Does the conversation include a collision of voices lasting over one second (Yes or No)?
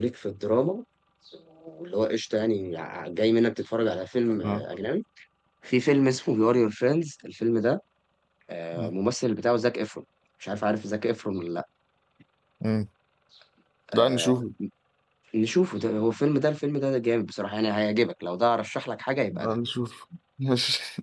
No